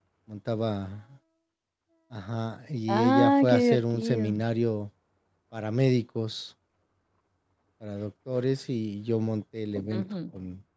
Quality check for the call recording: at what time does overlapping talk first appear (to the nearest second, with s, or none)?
3 s